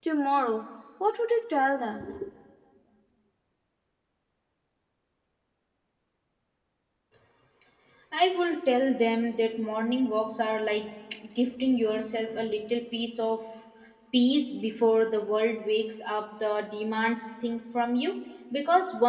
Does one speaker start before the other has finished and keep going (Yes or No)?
No